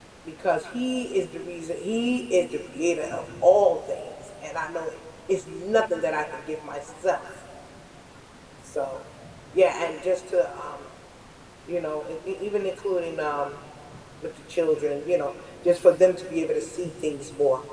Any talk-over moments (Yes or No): No